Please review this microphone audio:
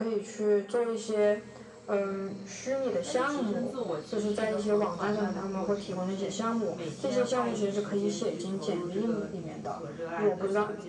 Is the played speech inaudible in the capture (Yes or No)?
No